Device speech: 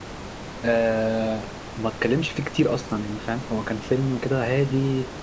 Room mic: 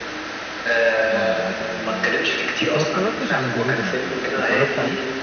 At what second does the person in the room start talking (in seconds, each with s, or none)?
1.1 s